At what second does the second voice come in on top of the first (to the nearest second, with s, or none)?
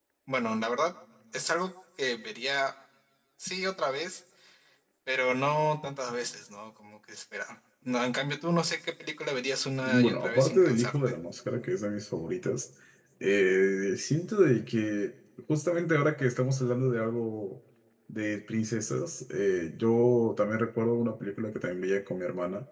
10 s